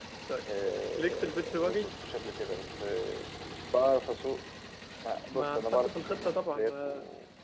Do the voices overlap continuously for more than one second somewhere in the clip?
Yes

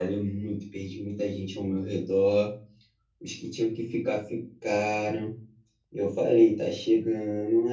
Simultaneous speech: No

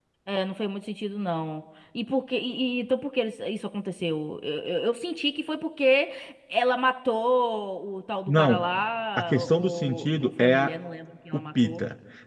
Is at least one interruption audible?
Yes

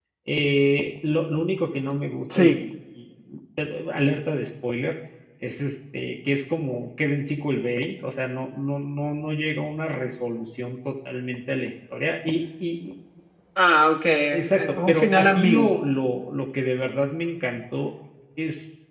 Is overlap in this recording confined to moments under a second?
No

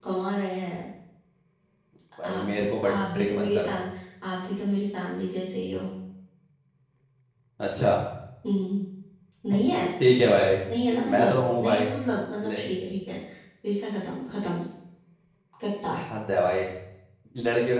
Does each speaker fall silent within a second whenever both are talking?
No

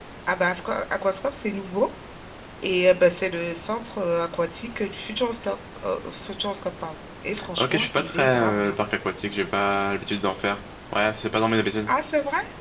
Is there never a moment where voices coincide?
No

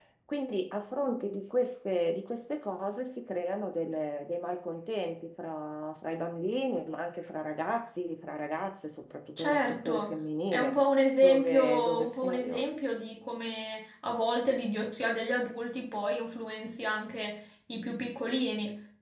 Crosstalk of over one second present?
Yes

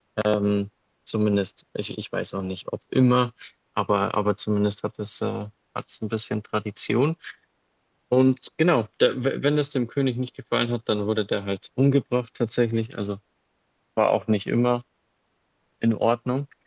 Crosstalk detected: No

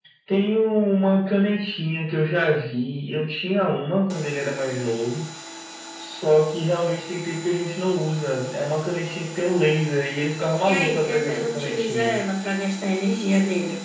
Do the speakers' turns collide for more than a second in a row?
Yes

